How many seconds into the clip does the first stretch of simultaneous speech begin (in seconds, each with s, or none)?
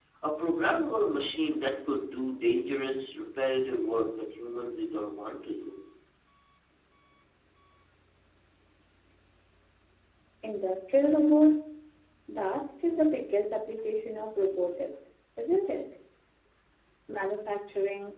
none